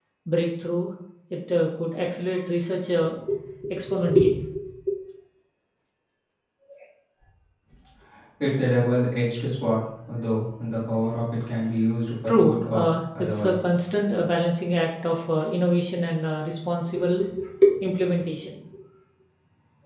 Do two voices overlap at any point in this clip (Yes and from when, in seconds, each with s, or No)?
Yes, from 12.3 s